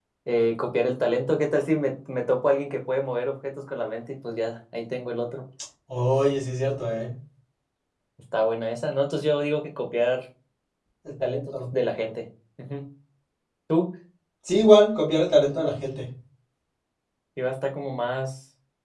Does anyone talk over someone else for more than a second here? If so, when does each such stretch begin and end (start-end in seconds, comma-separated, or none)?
none